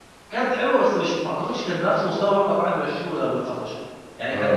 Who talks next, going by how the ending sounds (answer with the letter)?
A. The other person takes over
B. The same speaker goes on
B